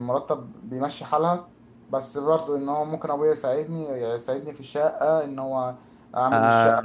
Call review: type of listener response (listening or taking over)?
taking over